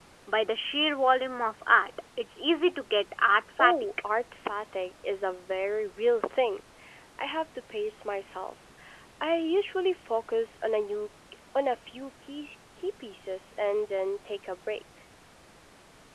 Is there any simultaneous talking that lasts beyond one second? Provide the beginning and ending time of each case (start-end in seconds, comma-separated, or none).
none